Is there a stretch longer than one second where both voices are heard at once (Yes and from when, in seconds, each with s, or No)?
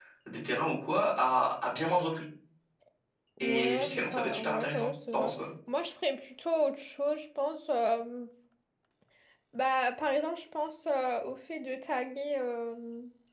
Yes, from 3.4 s